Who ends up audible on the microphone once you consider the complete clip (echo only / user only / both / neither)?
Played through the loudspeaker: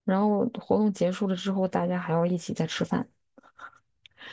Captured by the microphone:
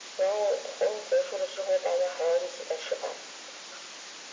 echo only